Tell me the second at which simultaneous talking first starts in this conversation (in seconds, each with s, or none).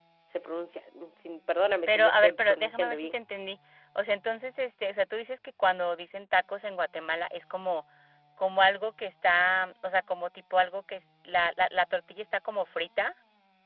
1.9 s